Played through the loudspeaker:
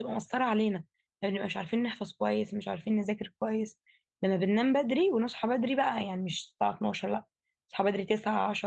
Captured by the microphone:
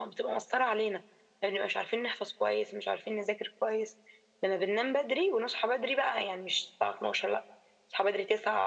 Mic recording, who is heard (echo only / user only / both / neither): echo only